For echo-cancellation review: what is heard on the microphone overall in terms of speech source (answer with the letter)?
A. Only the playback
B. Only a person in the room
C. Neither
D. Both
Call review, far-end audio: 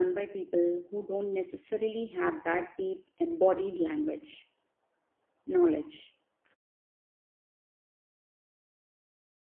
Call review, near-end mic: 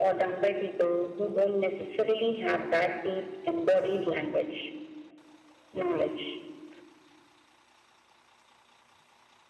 A